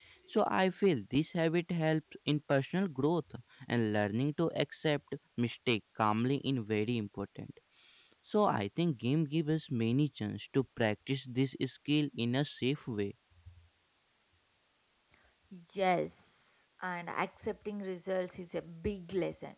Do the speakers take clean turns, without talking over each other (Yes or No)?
Yes